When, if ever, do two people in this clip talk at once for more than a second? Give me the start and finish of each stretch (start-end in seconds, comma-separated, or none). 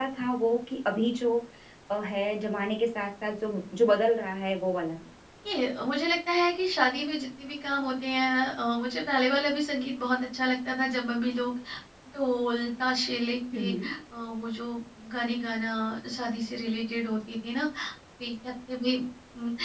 none